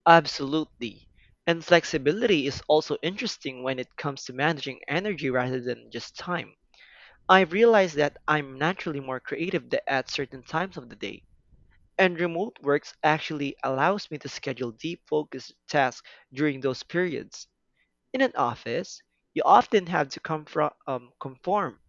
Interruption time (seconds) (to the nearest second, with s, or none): none